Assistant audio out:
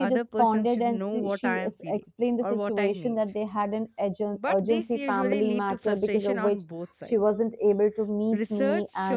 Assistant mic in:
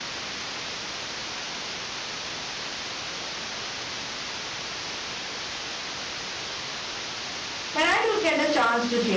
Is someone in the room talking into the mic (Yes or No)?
Yes